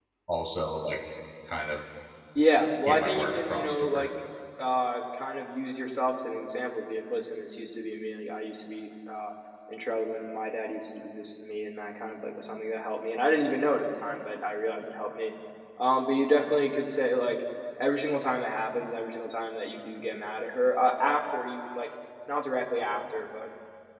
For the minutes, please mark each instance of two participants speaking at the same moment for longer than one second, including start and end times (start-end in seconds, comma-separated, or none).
2.8-4.1